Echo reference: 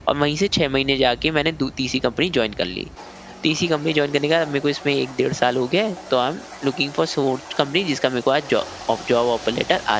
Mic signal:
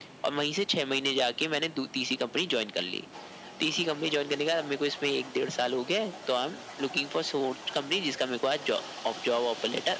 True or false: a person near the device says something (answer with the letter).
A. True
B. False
B